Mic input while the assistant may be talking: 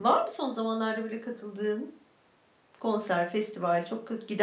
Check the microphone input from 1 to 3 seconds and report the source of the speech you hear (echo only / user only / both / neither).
user only